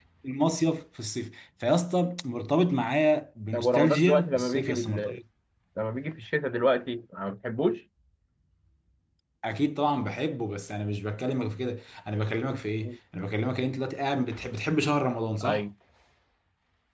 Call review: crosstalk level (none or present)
present